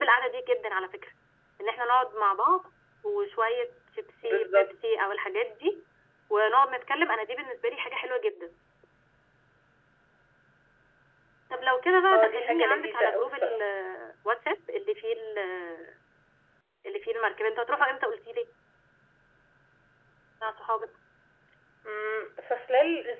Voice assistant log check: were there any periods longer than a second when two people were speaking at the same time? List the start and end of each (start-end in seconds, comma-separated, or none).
12.1-13.6